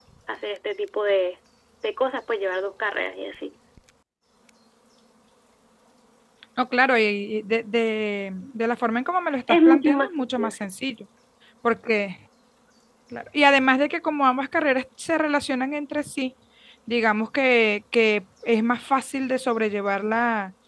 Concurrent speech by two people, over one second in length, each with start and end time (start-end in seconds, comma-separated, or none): 9.5-10.7